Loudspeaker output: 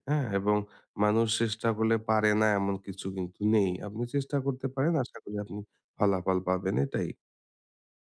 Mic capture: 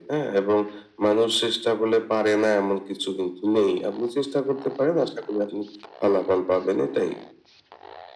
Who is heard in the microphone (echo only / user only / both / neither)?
echo only